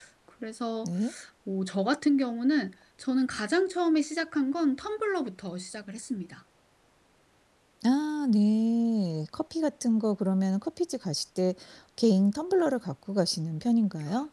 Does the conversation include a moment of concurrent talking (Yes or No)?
No